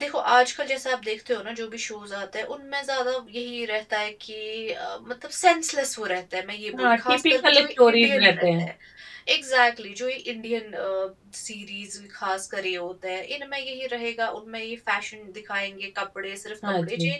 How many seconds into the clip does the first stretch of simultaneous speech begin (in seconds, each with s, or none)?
6.8 s